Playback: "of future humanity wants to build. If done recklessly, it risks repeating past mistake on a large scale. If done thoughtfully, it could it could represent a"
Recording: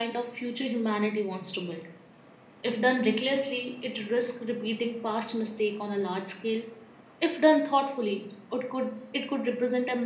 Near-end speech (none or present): none